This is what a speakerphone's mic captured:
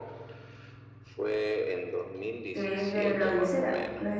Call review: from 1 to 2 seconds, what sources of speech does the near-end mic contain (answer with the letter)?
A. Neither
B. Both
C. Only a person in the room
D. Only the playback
D